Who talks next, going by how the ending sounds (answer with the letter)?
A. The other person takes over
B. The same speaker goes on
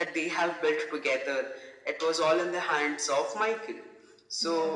B